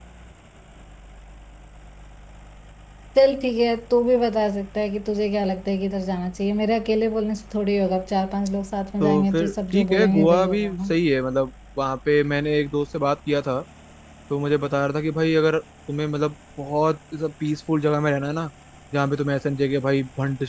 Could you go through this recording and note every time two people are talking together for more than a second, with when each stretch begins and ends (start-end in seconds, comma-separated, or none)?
9.0-10.9